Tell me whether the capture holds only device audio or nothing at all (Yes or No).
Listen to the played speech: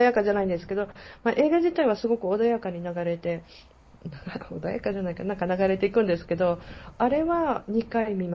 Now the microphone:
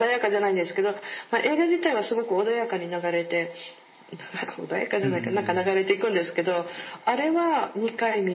No